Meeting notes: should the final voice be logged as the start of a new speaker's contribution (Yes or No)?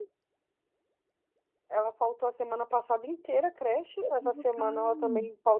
No